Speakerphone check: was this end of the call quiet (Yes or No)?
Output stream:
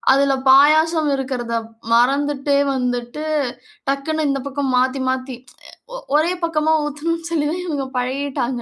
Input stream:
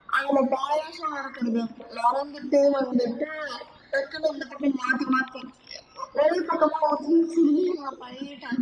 Yes